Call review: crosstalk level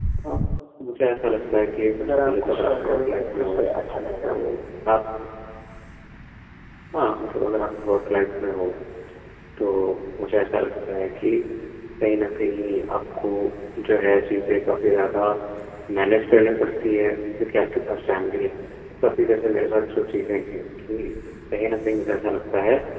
present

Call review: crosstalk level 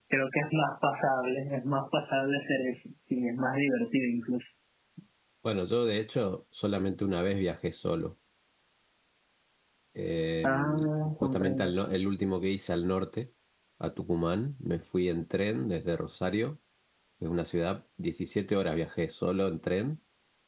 present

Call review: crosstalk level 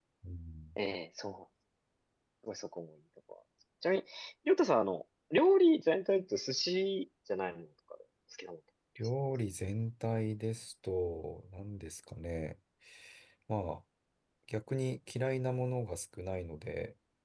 none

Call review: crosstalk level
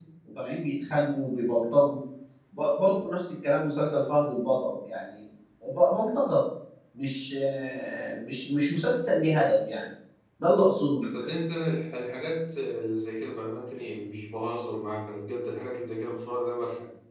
none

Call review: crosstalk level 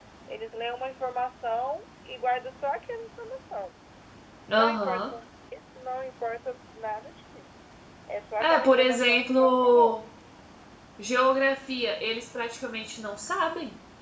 present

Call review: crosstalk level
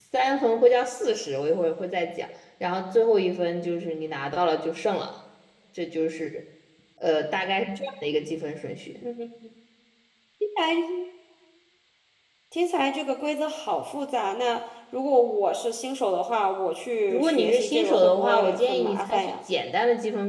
present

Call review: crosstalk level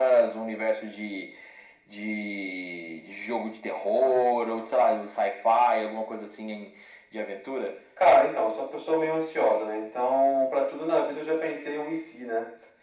none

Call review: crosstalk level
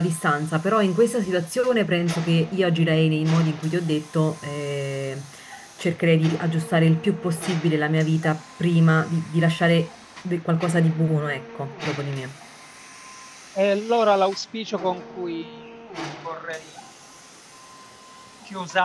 none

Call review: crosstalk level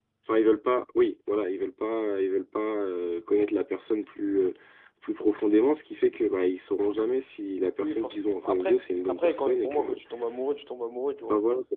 present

